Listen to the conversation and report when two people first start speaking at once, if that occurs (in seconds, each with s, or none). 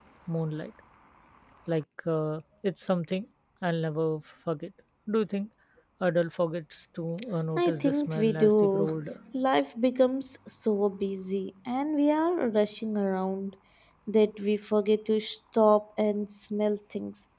7.6 s